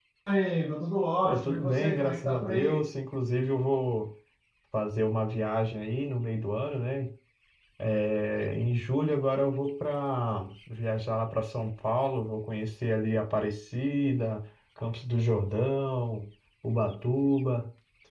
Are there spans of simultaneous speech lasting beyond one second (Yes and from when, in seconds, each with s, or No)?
Yes, from 1.2 s